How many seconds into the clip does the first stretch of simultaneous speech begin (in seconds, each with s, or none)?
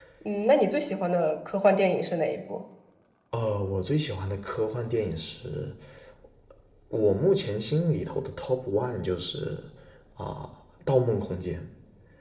none